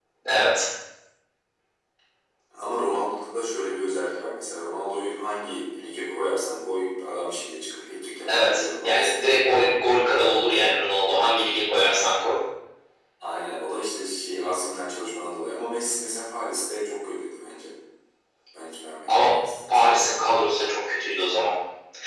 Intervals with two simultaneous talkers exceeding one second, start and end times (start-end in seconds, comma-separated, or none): 8.3-9.7